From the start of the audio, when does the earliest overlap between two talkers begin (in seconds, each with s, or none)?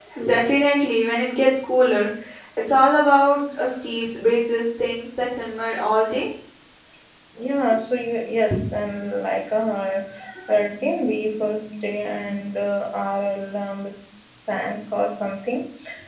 none